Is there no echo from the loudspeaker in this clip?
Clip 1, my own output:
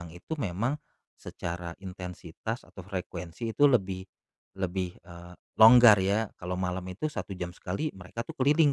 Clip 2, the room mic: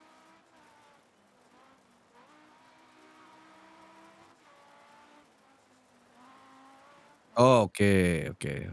Yes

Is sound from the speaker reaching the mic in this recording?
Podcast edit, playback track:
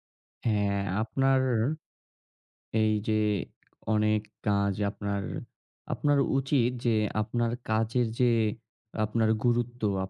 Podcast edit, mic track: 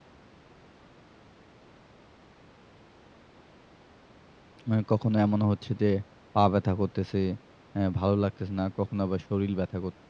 No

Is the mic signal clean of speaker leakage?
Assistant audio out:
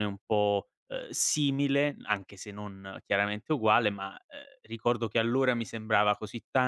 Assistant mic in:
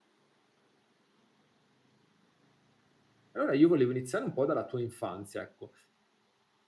Yes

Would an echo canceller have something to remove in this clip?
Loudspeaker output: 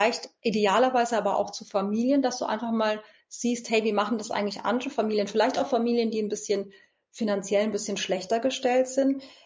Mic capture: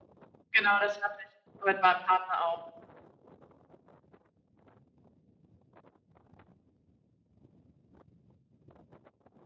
No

